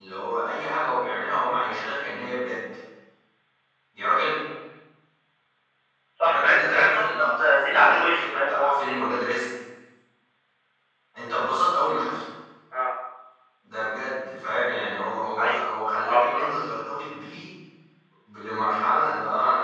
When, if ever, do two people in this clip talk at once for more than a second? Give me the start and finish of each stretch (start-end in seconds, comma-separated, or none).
6.2-9.4